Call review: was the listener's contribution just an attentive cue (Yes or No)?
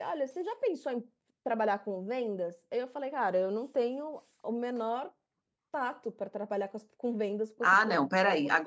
No